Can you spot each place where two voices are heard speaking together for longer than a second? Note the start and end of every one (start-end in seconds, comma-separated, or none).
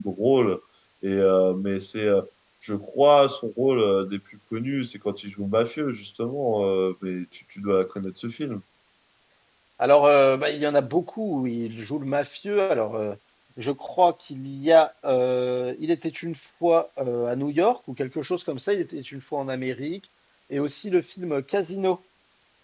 none